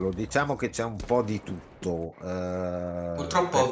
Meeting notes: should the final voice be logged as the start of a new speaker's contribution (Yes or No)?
Yes